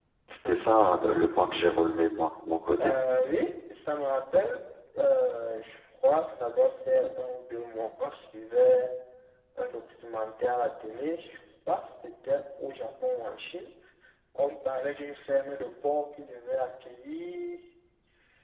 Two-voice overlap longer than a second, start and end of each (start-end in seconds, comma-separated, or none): none